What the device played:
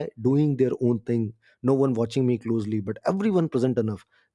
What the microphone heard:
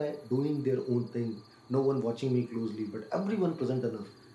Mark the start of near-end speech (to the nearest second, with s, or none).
none